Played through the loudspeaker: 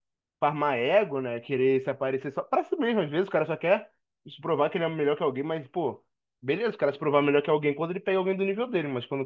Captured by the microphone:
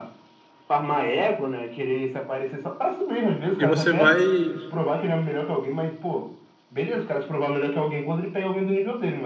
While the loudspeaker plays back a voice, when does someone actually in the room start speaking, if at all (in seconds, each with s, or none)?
3.6 s